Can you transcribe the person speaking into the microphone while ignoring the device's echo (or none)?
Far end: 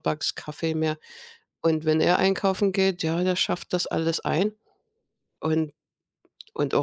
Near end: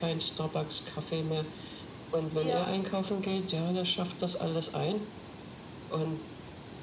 Ja,